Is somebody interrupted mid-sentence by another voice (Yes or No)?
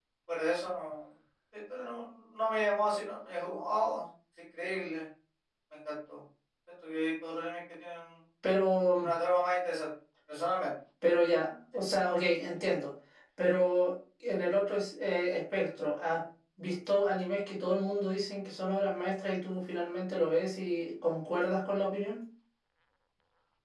No